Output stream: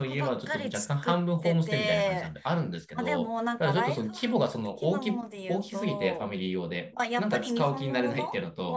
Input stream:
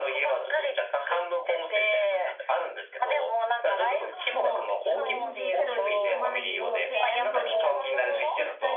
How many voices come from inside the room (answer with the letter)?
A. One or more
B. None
A